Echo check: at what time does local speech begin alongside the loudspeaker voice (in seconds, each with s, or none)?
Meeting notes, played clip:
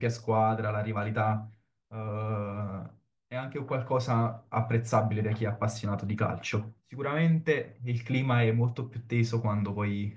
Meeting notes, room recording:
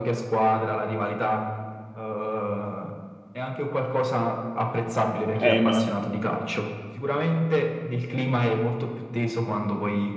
5.4 s